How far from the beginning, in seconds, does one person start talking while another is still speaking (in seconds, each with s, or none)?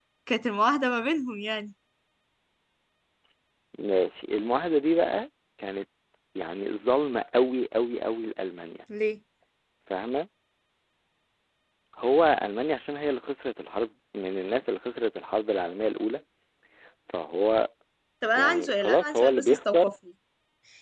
18.4 s